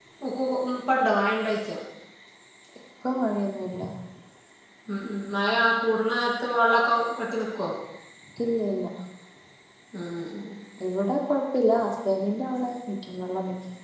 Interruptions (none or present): none